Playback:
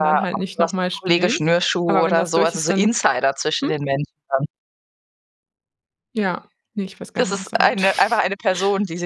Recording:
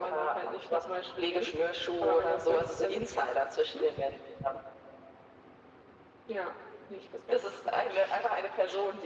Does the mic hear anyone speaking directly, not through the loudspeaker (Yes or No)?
No